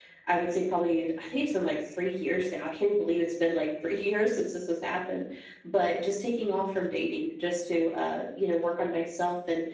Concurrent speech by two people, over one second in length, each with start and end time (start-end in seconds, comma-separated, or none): none